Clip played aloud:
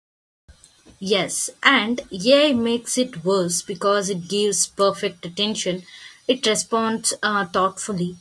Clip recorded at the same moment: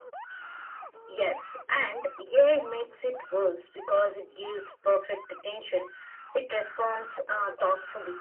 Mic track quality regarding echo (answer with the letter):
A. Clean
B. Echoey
B